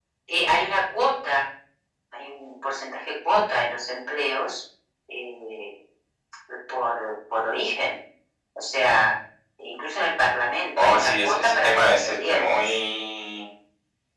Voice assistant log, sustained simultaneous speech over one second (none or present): present